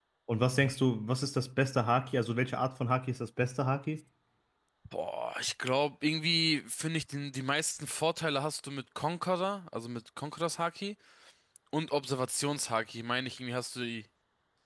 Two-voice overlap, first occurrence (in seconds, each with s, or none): none